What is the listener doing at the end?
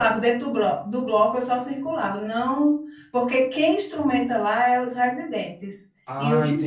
taking over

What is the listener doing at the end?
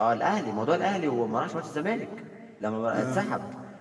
listening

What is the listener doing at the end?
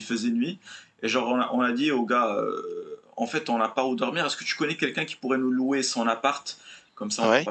listening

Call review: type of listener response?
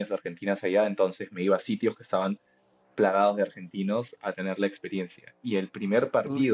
listening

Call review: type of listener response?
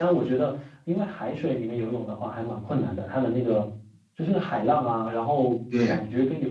listening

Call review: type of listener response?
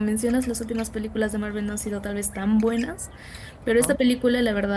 listening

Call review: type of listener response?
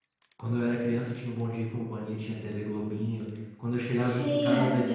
listening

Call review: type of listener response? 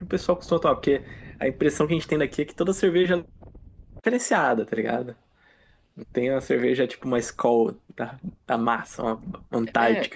taking over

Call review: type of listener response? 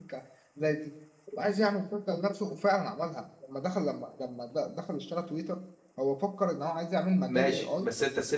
taking over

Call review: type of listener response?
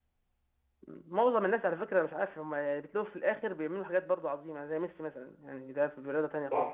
taking over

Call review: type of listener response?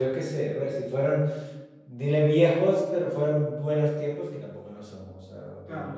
taking over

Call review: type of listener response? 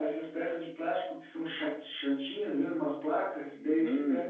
listening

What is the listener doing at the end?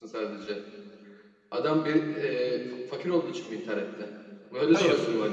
taking over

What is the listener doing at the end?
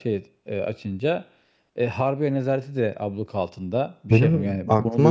taking over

